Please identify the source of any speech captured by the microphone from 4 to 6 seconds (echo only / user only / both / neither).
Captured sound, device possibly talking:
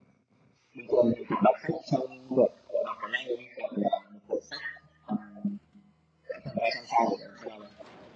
echo only